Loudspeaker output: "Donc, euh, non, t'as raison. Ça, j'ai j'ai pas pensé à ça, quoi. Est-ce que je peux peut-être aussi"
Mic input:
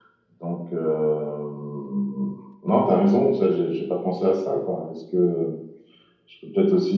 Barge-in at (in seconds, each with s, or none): none